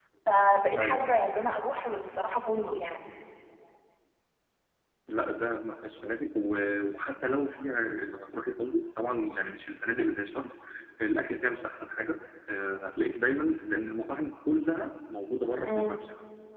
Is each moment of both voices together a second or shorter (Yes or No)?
Yes